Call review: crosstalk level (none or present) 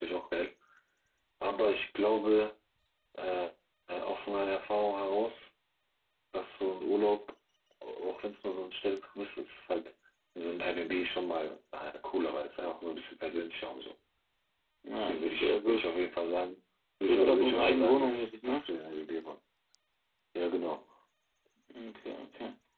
present